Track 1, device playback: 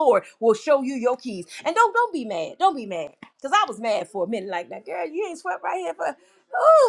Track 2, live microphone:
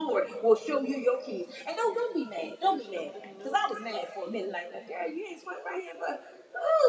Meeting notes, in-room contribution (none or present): present